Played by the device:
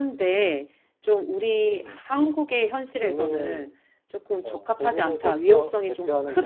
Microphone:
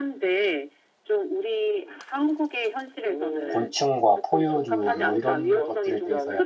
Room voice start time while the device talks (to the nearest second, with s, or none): 3 s